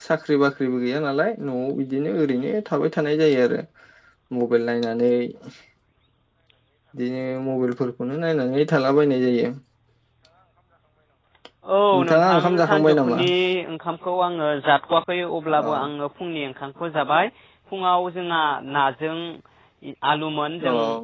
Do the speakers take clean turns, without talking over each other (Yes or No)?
No